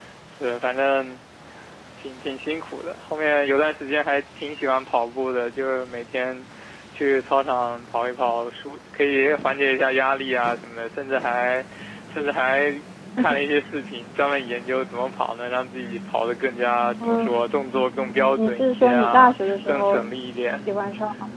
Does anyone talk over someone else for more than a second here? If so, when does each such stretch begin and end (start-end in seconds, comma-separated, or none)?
18.4-20.1